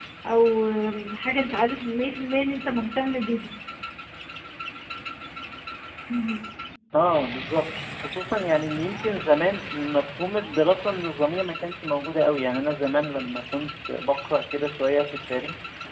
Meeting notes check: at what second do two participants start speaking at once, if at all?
none

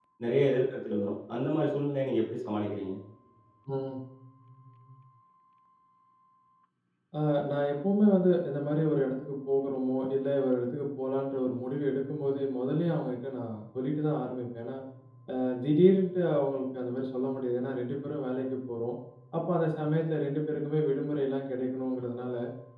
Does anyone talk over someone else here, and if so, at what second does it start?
none

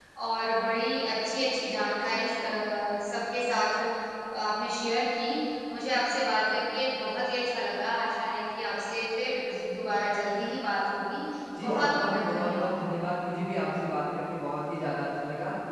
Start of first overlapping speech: 11.6 s

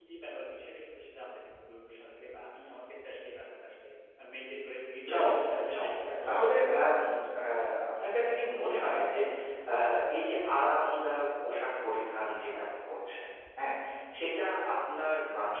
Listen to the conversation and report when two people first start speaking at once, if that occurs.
5.1 s

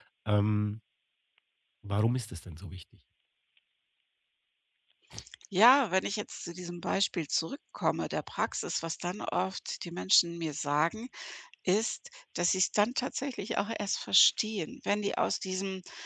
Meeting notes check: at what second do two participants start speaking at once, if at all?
none

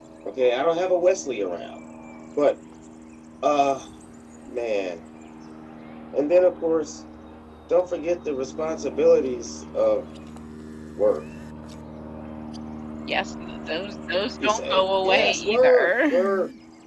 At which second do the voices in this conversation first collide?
14.4 s

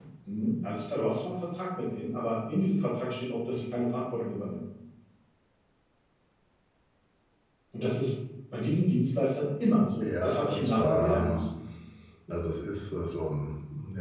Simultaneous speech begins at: 10.0 s

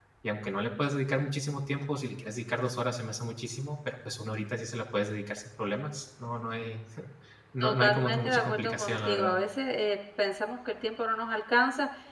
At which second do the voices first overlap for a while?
7.6 s

